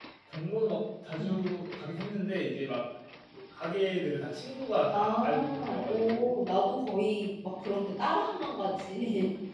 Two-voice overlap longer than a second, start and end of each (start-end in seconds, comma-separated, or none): 4.9-6.3